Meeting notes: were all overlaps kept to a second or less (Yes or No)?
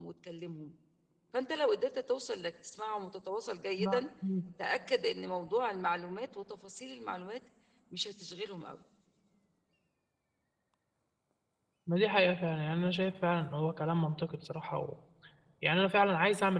Yes